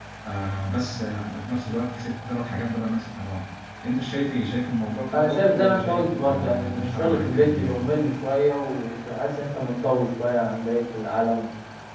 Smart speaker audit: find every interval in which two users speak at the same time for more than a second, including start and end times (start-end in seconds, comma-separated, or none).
5.1-7.8